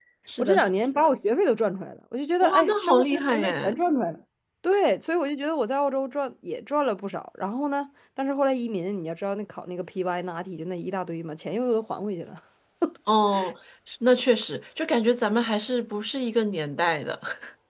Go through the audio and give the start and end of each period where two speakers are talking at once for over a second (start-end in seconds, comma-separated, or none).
2.4-3.7